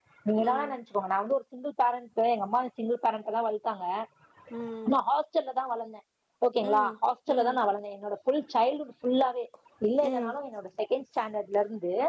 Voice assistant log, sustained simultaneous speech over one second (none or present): none